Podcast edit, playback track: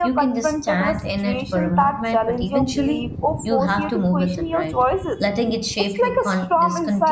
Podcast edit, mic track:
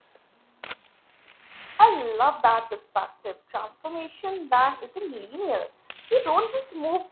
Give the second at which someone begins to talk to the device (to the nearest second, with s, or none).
2 s